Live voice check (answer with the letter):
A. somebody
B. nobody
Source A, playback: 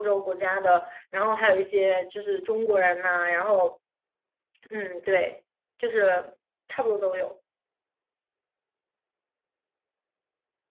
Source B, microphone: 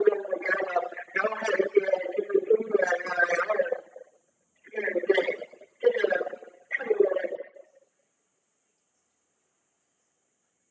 B